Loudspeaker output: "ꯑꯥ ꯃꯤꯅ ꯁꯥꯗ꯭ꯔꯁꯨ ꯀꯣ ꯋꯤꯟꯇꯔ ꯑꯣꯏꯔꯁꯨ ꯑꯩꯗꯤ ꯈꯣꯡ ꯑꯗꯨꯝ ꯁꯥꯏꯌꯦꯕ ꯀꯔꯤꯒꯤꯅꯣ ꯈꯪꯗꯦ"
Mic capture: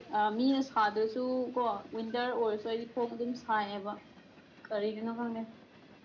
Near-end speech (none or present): none